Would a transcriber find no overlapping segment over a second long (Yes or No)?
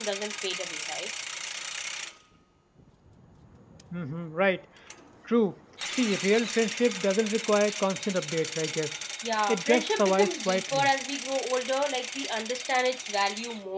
No